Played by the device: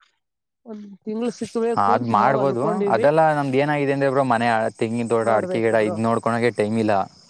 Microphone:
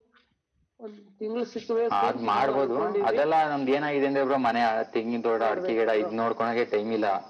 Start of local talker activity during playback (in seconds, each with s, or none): none